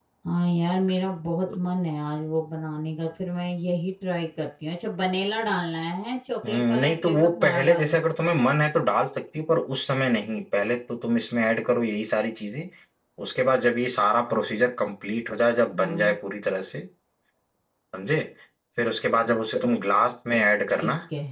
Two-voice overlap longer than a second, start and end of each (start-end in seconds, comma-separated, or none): 6.4-8.0